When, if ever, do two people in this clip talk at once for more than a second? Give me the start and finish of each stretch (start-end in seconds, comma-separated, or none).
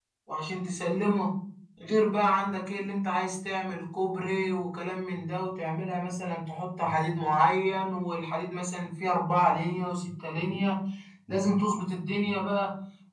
none